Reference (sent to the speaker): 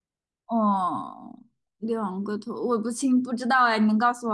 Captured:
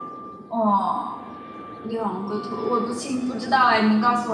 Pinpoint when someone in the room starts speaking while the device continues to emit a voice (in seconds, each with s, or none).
none